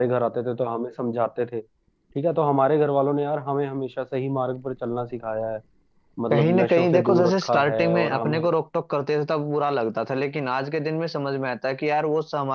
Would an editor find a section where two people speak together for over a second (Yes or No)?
Yes